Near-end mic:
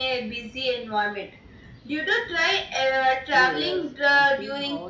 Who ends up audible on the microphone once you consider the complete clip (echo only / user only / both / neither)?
both